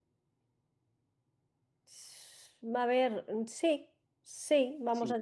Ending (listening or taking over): taking over